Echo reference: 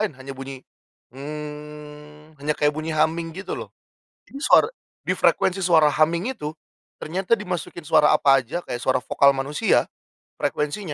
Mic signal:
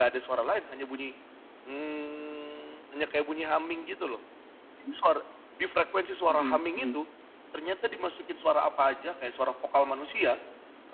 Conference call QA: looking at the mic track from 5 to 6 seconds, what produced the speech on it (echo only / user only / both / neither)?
echo only